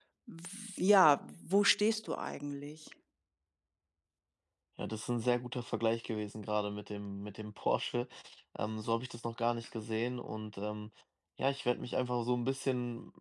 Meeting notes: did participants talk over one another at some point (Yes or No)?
No